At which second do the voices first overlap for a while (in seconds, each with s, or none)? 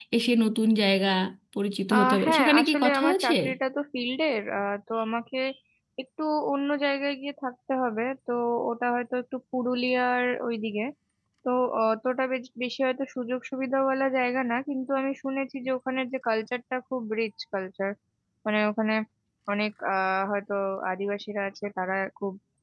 1.9 s